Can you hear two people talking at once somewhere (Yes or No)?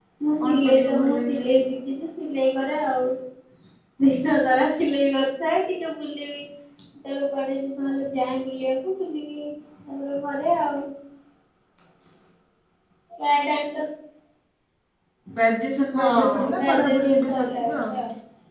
Yes